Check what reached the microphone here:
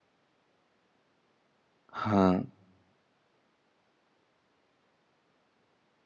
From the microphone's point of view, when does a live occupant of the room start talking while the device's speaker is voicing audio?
2.0 s

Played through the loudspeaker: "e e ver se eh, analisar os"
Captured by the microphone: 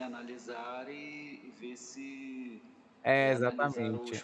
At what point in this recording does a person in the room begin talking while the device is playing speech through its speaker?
3.0 s

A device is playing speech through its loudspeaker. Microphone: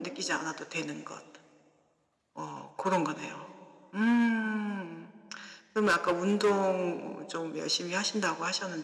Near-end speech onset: none

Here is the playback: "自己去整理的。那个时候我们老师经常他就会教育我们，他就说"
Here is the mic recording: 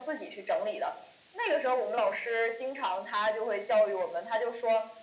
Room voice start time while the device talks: none

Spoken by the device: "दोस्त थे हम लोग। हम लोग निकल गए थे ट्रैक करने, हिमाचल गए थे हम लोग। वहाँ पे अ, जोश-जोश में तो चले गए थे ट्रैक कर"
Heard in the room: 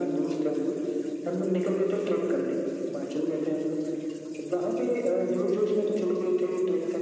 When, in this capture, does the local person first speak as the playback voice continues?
none

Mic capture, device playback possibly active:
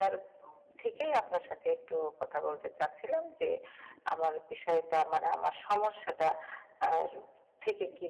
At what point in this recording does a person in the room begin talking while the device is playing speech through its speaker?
none

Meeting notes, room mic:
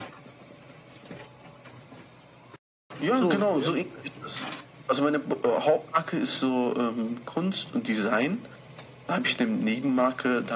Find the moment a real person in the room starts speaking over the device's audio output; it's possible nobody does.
3.1 s

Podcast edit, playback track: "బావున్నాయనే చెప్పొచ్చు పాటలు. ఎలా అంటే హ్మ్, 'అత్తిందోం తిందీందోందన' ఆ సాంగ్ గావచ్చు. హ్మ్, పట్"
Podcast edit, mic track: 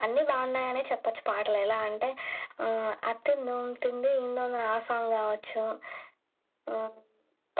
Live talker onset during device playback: none

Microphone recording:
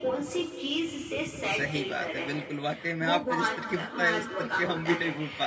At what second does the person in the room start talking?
1.6 s

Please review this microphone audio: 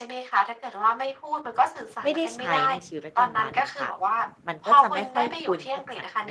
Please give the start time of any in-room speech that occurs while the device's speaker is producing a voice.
2.0 s

